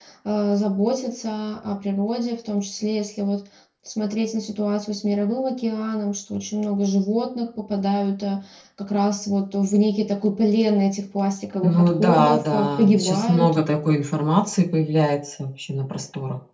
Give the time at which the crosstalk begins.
11.6 s

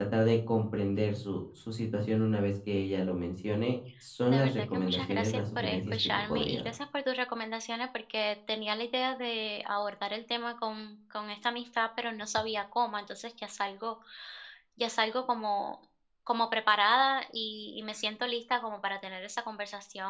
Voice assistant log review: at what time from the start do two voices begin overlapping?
4.2 s

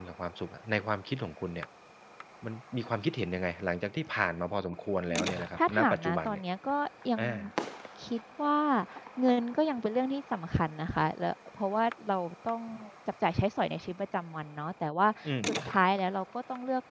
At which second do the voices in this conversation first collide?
5.1 s

